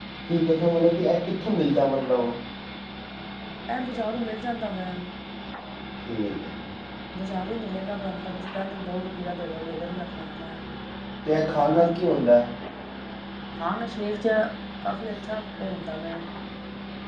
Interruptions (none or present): none